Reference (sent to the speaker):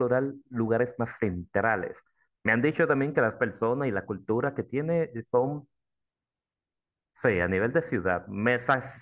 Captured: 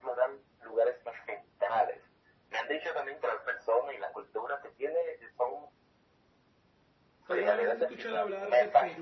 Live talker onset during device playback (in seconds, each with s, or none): 7.2 s